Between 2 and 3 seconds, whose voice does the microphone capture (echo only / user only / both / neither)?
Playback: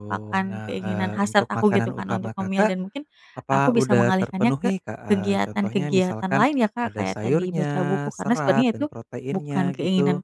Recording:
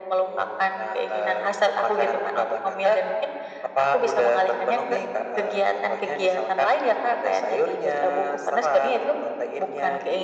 echo only